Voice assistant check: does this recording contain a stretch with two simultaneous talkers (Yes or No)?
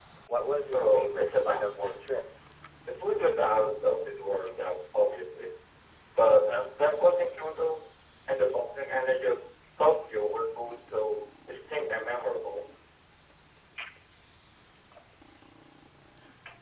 Yes